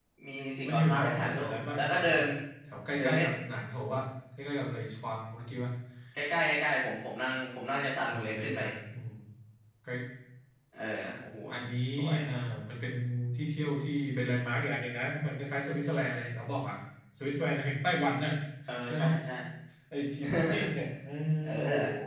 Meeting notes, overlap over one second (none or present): present